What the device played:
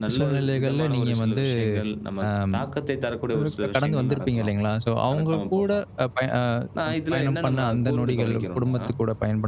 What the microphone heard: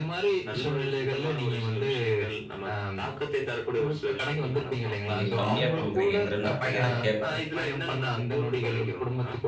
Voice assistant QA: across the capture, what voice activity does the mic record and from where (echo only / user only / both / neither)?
both